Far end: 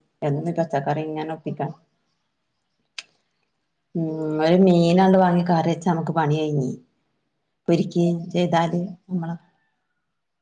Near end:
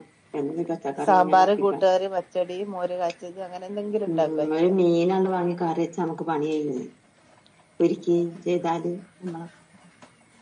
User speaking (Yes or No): Yes